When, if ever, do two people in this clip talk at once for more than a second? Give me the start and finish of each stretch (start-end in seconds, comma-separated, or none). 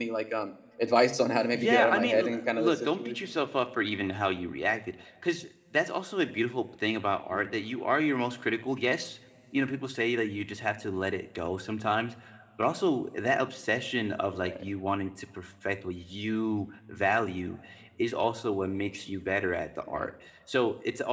1.5-3.2